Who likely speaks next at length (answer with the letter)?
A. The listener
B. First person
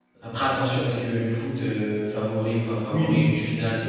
A